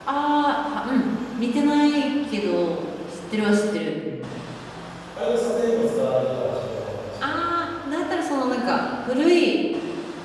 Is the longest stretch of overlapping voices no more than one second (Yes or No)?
Yes